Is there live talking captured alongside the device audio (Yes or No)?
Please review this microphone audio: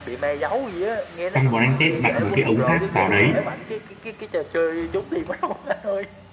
Yes